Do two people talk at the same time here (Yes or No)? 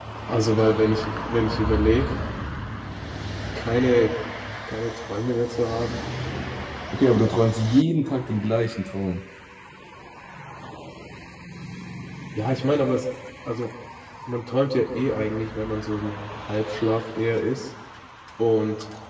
No